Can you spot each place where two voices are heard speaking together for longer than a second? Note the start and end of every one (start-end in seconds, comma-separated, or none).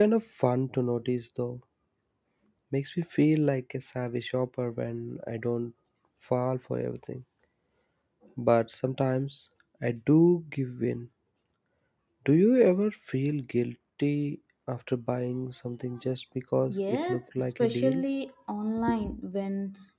16.7-18.0